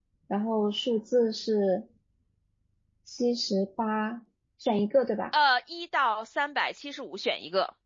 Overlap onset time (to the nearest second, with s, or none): none